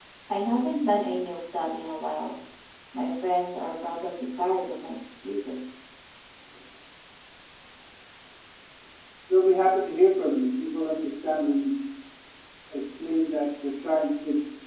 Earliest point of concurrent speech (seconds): none

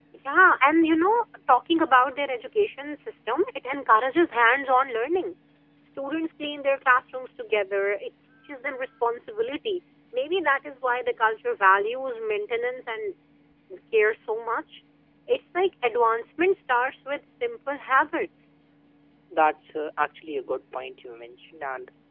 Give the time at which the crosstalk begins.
none

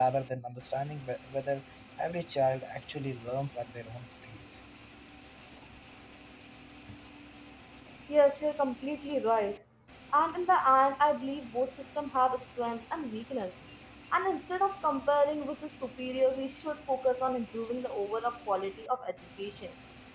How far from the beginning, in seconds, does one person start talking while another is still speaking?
none

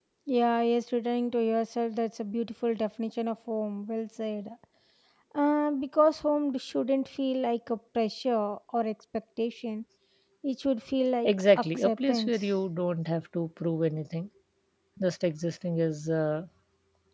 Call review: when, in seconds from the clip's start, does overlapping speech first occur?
11.2 s

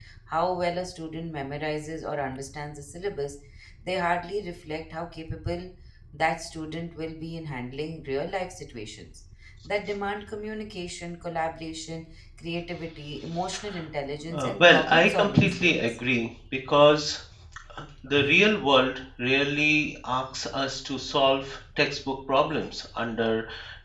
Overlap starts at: 14.3 s

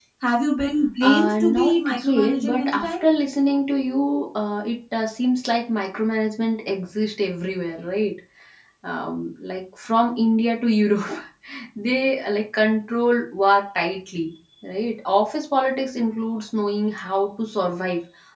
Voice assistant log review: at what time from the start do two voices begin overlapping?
1.0 s

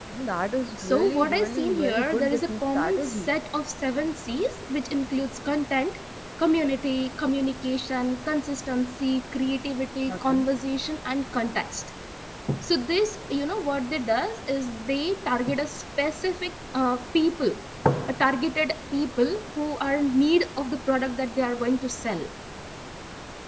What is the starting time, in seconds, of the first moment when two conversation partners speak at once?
0.8 s

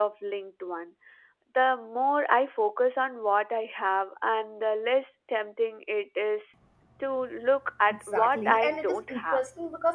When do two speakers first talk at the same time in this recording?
7.9 s

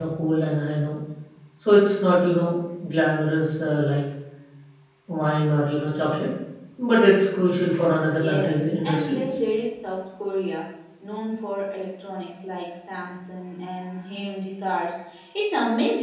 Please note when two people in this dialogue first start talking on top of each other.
8.1 s

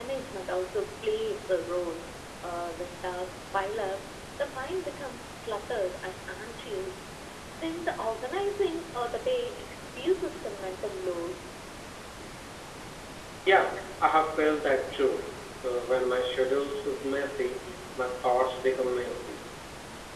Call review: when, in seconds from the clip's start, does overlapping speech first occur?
none

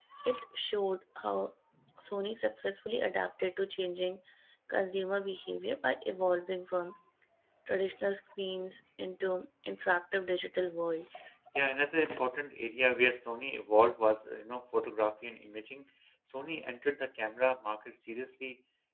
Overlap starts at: none

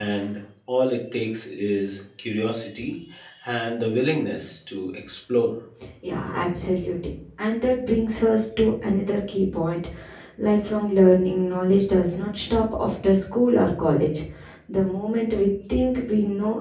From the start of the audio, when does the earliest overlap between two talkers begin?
none

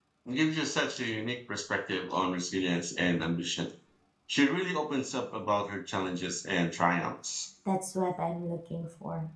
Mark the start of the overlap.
none

